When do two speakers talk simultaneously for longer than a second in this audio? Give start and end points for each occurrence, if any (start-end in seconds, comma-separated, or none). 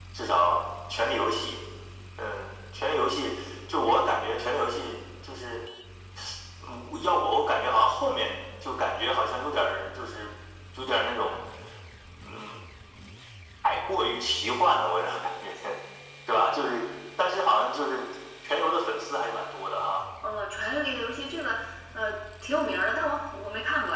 none